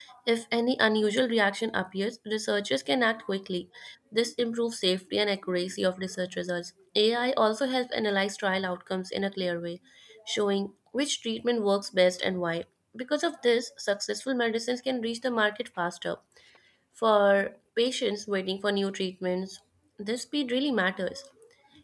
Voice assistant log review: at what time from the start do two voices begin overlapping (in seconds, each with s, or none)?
none